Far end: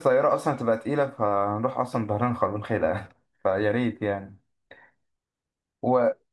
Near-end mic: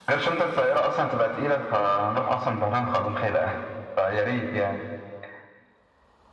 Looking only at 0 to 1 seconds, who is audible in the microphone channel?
echo only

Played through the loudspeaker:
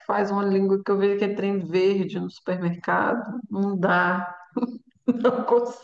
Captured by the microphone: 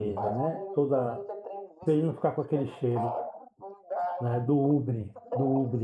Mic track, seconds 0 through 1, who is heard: both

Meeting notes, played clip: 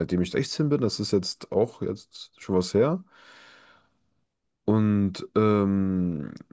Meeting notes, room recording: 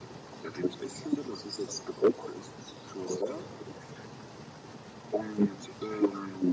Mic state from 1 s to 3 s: echo only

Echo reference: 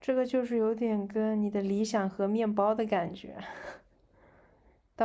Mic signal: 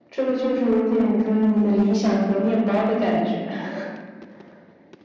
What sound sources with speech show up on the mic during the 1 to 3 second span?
echo only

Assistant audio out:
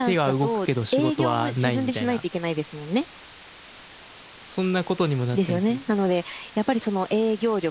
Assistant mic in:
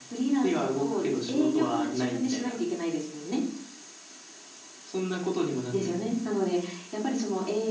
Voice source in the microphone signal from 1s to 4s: echo only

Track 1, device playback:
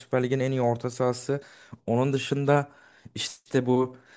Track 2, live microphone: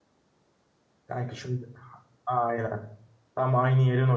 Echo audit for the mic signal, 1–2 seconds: user only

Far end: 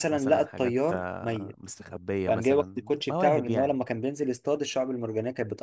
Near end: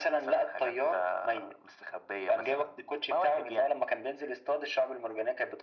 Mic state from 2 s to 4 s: echo only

